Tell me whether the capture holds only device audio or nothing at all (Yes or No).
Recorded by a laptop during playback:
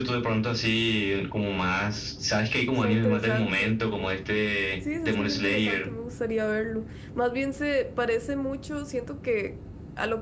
No